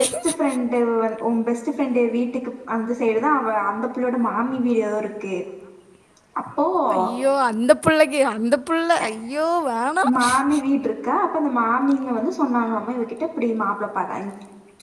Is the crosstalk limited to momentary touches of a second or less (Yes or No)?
Yes